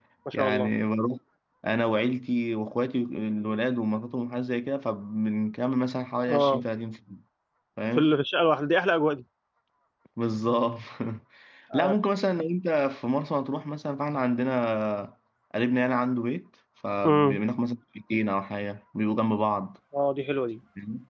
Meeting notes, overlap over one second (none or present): none